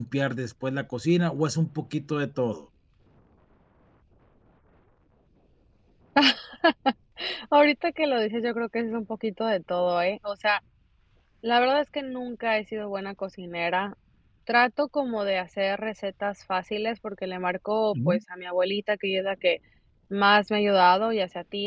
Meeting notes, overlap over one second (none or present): none